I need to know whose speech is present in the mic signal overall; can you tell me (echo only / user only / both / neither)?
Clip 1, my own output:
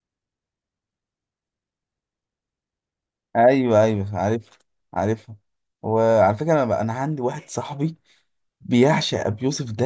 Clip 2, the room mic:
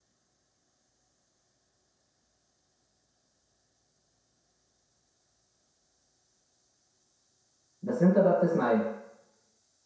user only